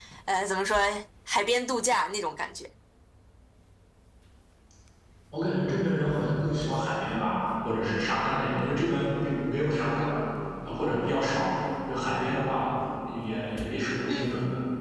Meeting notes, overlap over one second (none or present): none